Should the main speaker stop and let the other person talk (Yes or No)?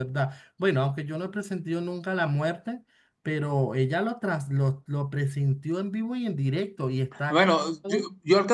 Yes